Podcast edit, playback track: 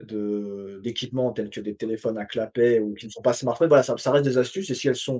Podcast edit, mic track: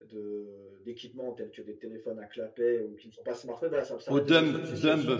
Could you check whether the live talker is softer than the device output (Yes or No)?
No